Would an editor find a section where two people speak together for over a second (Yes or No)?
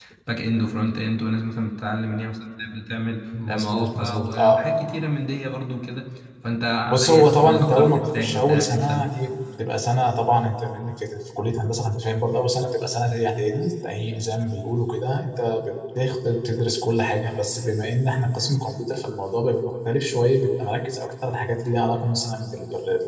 Yes